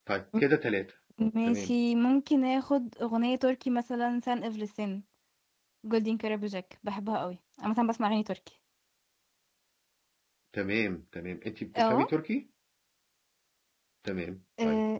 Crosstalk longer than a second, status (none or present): none